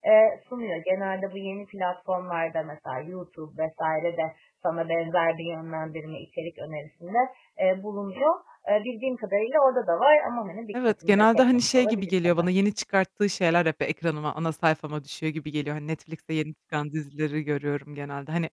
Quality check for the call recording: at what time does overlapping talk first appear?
10.7 s

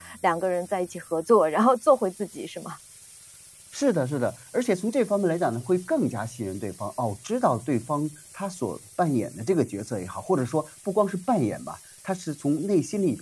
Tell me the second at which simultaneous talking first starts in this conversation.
none

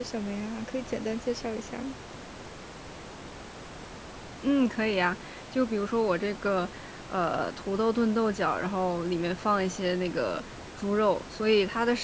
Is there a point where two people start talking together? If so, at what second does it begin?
none

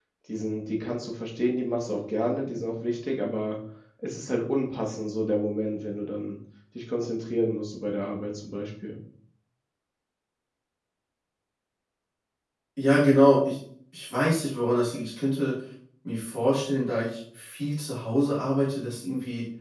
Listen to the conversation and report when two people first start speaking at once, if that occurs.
none

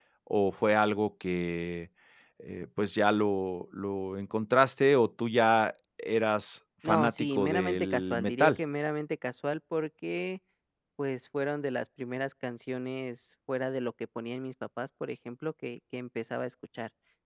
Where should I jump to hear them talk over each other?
6.8 s

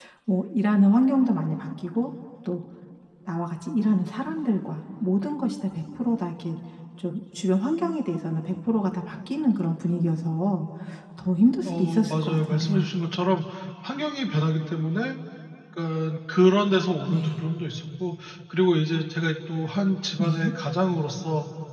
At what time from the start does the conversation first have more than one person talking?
11.6 s

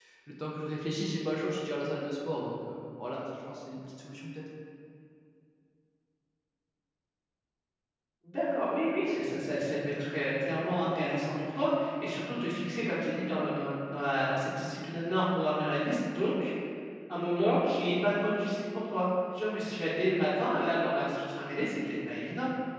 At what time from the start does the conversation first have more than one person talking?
none

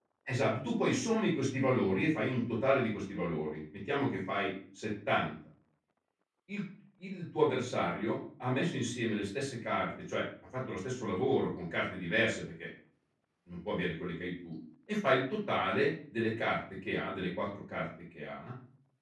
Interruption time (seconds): none

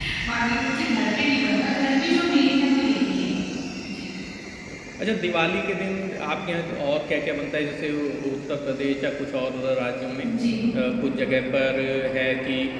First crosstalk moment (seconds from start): none

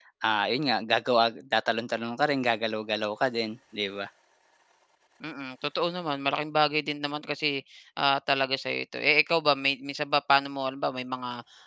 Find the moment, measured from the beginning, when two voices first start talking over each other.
none

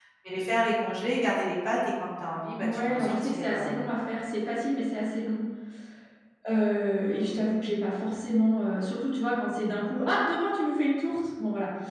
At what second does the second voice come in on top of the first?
2.6 s

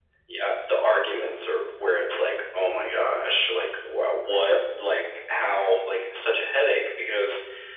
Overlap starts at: none

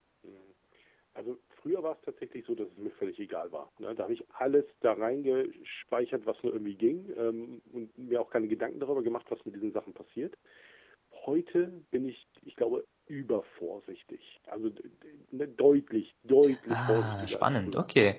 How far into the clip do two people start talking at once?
16.7 s

